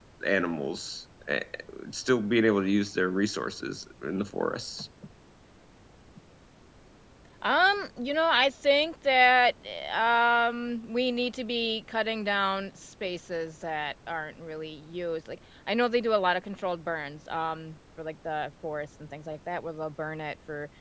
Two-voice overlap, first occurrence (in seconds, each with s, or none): none